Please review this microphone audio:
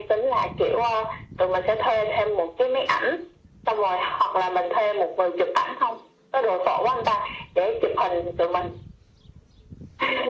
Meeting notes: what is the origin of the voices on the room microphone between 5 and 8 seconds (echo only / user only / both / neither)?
echo only